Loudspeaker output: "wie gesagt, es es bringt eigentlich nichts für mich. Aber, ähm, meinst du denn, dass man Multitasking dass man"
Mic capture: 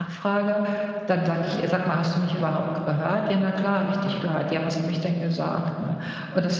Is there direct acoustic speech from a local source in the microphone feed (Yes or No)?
Yes